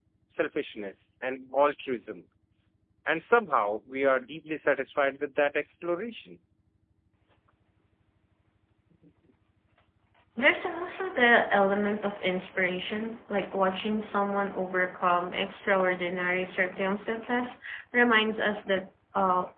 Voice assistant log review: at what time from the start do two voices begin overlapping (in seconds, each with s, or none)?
none